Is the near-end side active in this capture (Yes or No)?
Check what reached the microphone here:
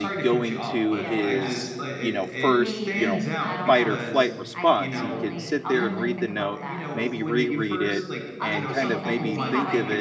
Yes